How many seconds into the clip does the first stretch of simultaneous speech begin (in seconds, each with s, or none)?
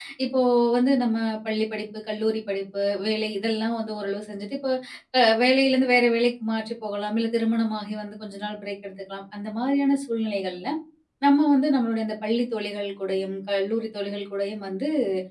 none